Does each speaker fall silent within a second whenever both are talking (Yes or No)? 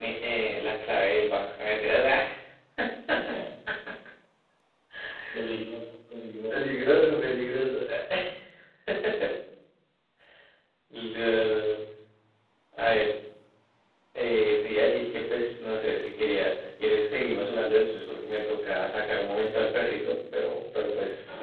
Yes